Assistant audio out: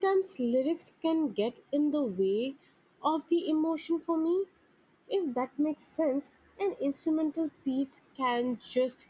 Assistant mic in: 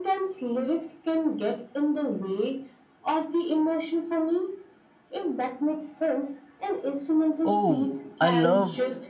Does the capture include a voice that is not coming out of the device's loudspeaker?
Yes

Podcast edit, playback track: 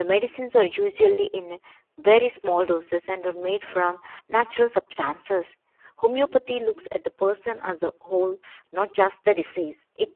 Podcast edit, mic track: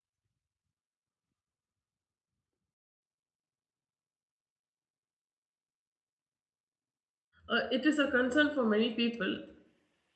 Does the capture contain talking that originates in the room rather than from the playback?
Yes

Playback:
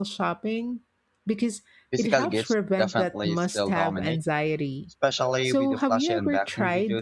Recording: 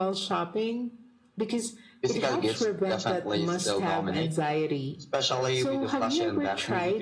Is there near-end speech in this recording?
No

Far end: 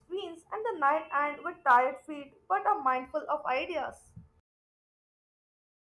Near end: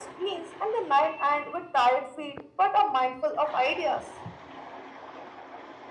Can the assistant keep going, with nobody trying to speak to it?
Yes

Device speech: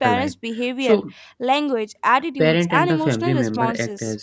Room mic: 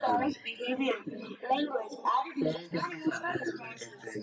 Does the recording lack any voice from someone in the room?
Yes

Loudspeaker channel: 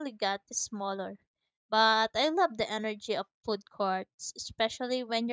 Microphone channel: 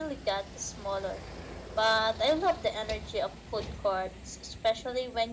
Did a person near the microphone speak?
No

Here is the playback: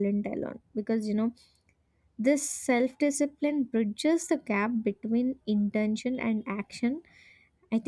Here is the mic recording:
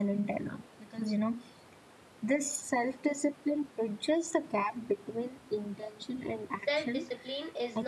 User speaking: Yes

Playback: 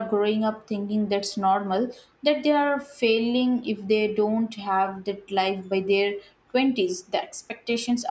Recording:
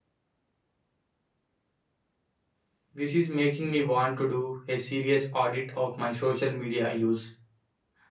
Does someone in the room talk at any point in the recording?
Yes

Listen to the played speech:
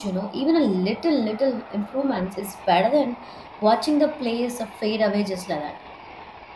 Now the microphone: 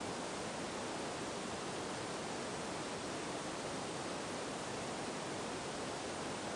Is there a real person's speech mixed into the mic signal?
No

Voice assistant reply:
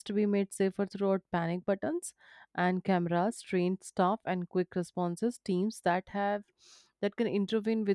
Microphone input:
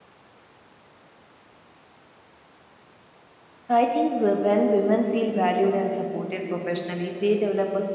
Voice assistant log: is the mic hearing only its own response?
No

